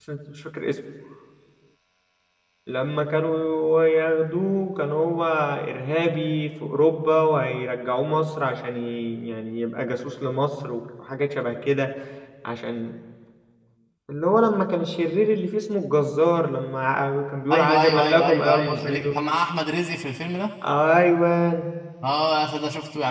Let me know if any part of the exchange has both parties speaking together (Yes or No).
Yes